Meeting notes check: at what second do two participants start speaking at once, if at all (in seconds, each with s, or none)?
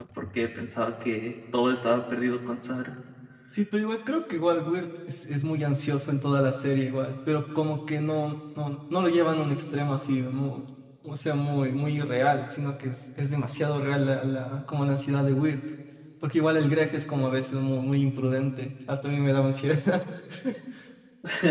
none